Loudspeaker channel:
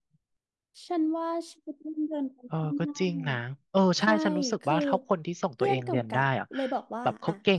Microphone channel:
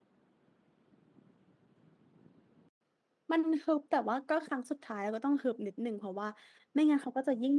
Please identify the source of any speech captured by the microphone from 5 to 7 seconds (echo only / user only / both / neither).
user only